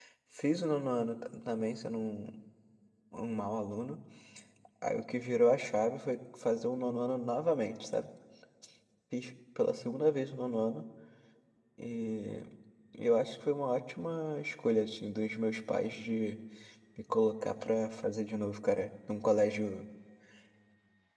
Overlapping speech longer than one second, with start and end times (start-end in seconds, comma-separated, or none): none